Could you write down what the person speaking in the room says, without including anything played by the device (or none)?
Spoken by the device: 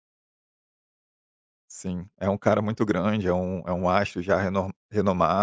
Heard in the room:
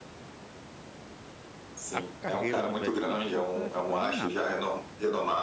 a carreira do Brad Pitt não foi afetada em nada,